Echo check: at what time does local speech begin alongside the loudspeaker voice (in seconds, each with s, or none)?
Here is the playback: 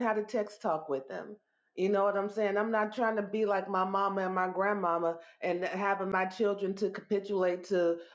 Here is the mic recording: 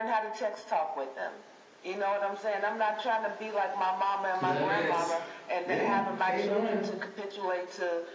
4.4 s